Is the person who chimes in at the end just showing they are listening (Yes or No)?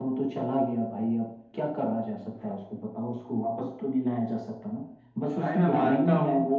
No